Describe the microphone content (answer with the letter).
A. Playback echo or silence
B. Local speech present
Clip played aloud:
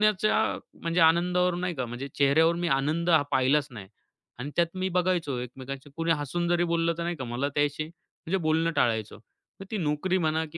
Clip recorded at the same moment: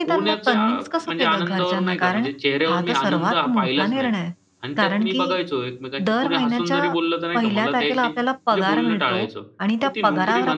B